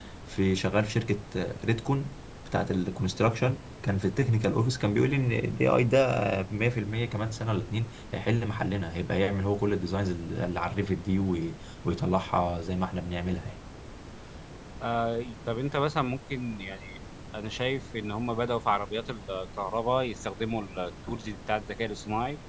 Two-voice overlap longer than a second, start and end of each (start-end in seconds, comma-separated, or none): none